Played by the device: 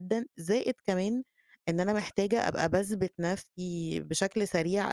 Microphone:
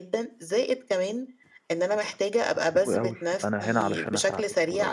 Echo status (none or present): present